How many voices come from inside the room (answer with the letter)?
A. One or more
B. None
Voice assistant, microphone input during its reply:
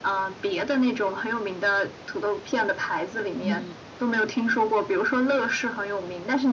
A